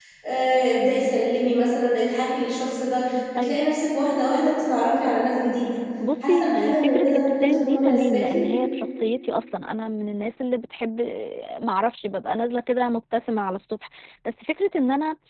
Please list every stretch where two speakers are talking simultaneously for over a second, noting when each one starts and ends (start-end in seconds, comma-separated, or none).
6.3-8.2